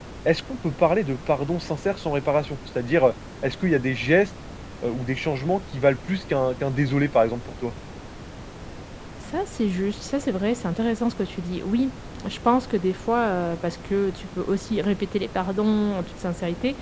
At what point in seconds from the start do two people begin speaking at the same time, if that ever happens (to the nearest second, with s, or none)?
none